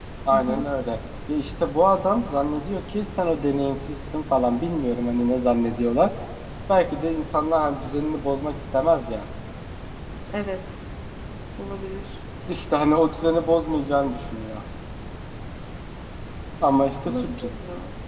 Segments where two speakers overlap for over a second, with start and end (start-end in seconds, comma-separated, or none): none